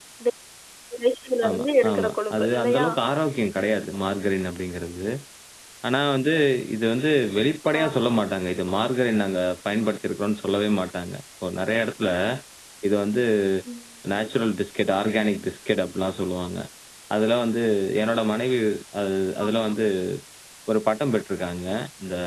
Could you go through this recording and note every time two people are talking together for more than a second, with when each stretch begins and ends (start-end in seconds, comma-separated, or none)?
1.5-2.9